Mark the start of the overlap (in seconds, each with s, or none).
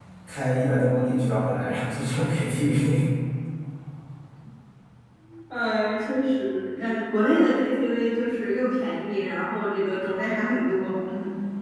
none